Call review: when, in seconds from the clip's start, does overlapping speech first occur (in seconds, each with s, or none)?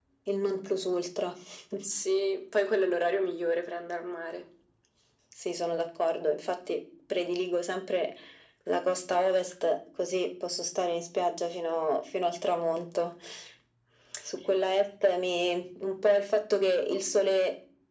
none